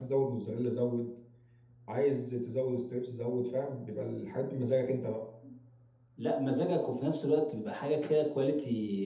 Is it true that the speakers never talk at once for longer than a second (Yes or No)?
Yes